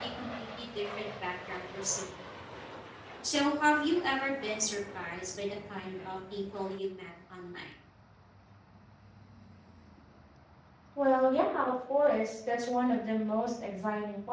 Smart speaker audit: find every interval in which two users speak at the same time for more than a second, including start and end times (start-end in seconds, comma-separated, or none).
none